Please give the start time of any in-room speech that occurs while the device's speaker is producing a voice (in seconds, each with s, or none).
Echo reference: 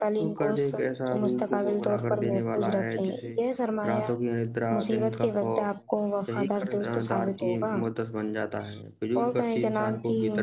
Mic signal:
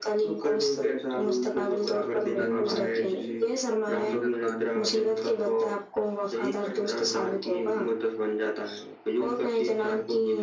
2.4 s